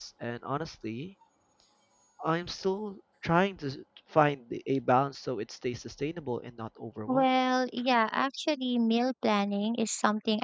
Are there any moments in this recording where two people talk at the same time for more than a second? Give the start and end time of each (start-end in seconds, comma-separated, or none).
none